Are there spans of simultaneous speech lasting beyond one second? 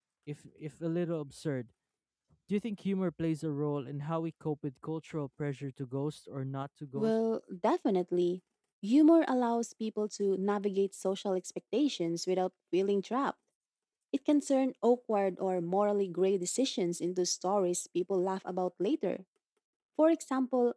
No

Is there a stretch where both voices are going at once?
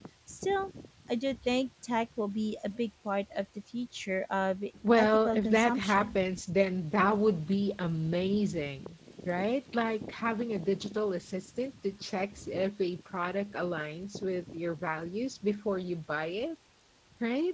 Yes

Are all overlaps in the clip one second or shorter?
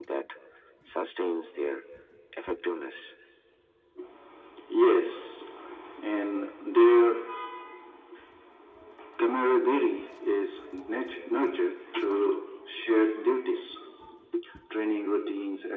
Yes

